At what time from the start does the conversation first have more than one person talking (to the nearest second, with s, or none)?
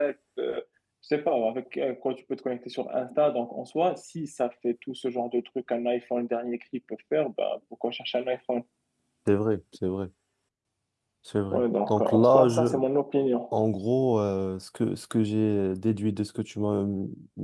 12 s